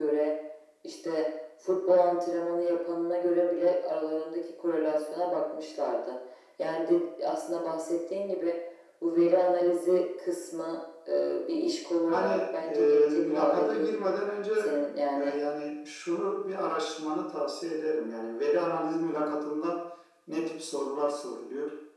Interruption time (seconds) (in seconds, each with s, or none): 12.1 s